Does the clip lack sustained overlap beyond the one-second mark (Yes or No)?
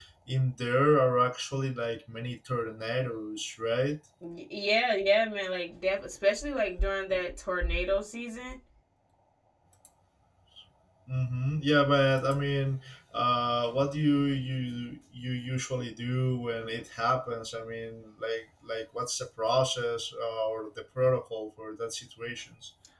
Yes